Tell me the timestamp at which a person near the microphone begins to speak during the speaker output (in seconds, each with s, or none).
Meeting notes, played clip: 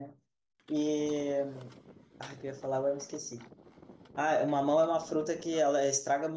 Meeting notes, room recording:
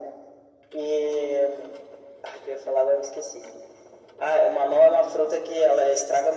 none